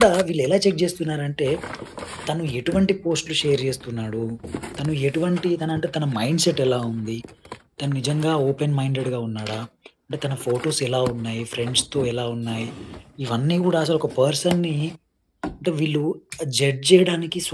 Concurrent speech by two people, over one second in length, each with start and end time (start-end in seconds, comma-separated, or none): none